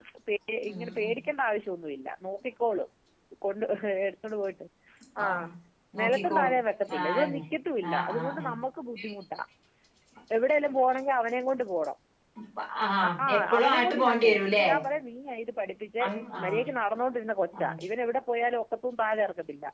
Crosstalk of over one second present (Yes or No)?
Yes